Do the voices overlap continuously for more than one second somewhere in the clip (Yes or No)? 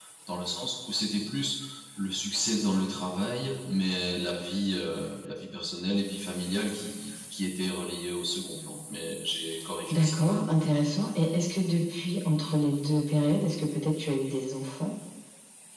No